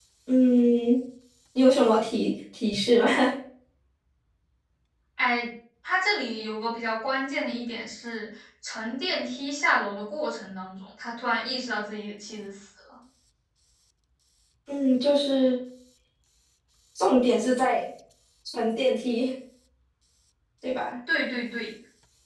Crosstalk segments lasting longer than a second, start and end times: none

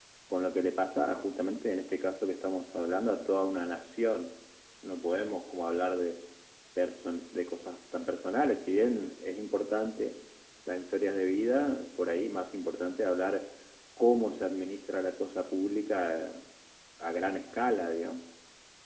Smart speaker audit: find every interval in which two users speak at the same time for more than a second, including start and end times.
none

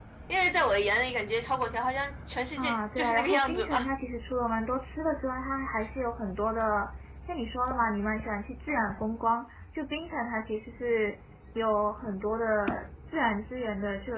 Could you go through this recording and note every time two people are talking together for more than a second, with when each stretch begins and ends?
2.6-3.9

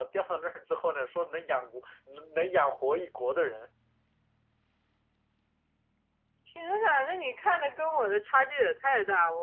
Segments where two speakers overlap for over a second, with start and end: none

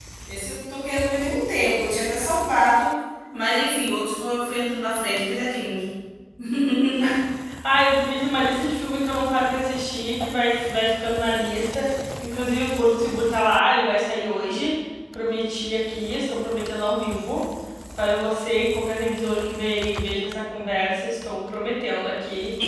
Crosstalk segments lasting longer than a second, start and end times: none

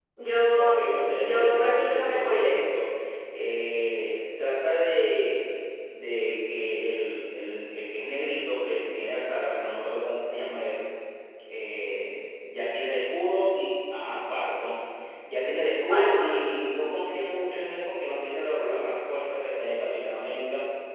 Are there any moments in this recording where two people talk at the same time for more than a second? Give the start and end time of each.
0.6-2.6

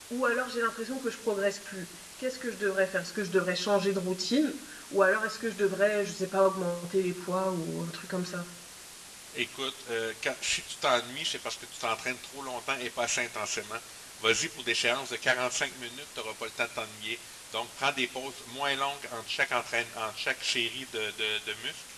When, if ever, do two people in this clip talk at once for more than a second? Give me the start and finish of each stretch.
none

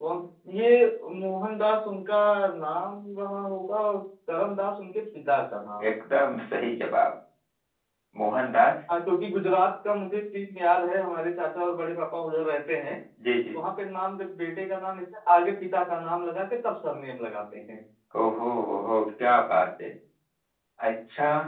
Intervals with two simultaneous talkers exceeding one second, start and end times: none

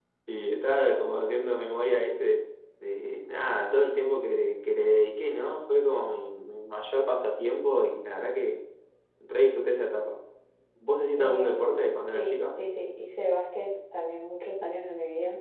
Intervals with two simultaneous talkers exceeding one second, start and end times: 11.2-12.6

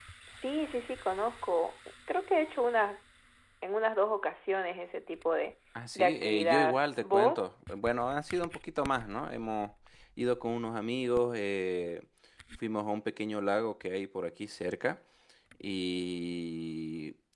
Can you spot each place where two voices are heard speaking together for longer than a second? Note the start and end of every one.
6.0-7.5

